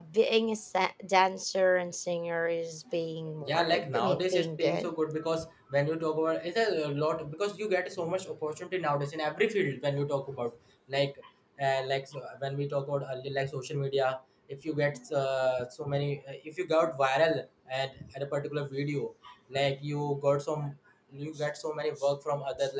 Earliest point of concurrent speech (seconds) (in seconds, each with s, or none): 3.4 s